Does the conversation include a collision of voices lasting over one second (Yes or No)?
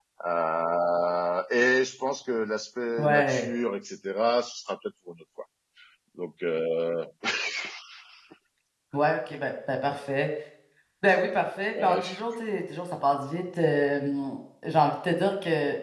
No